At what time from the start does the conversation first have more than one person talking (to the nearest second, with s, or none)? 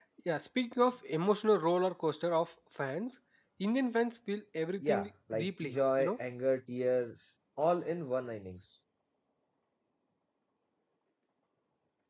5 s